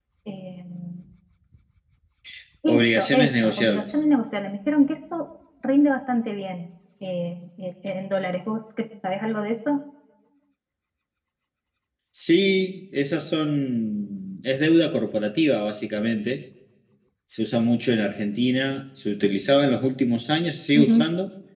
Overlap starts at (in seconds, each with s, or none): 2.7 s